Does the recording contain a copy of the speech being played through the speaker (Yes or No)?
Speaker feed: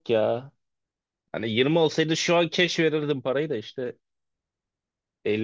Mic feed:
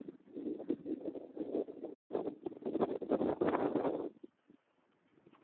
No